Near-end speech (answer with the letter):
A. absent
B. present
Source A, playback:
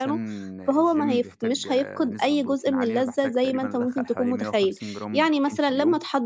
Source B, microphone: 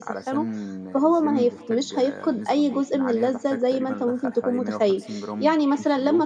A